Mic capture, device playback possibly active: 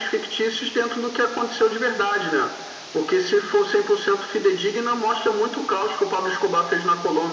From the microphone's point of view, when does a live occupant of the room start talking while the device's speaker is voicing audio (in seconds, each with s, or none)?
none